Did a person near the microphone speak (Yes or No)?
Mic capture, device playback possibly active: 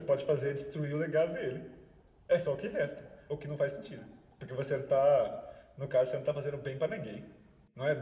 No